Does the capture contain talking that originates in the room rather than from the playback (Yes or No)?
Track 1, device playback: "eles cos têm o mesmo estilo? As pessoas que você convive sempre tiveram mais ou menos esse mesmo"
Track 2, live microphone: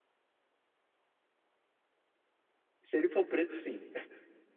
Yes